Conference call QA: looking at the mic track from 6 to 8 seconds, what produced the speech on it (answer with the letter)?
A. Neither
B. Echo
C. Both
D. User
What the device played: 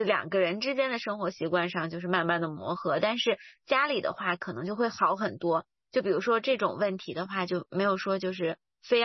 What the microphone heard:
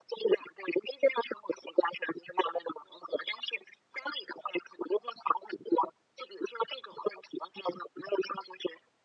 B